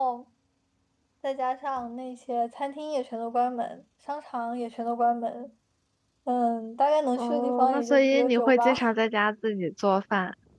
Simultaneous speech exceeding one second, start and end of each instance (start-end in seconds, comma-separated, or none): 7.2-8.8